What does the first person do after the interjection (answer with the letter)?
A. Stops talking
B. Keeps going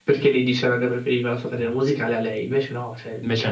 B